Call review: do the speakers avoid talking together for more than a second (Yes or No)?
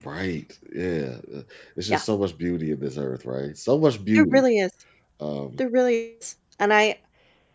Yes